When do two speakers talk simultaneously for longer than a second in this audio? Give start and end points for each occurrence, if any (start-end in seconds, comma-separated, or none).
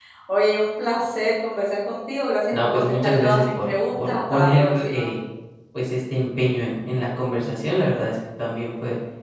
2.5-5.1